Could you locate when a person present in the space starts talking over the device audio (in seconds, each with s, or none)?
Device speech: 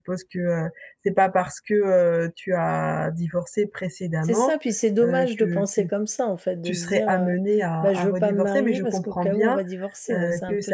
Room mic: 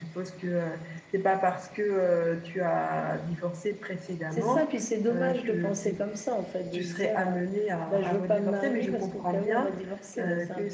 none